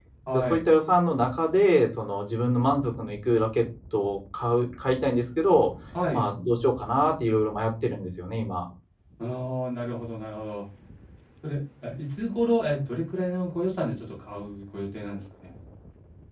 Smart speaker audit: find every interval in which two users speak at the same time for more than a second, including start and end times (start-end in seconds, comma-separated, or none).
none